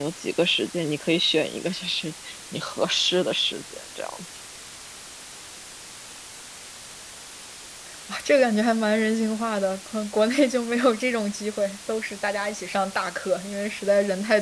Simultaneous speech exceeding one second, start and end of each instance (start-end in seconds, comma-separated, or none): none